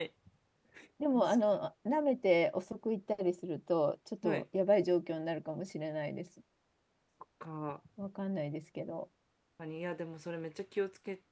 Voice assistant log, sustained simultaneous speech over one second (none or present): none